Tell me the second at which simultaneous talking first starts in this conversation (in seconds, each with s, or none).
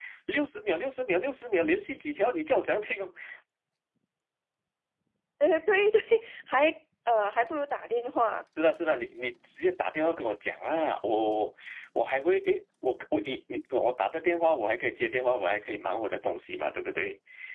none